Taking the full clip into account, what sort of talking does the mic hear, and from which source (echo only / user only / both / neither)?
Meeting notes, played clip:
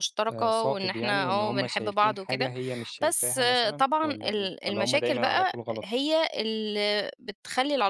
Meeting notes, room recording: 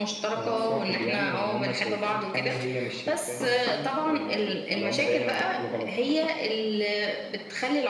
echo only